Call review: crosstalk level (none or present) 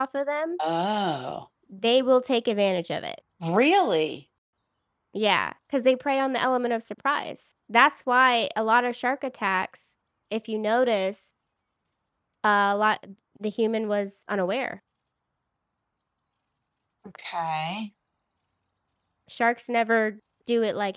none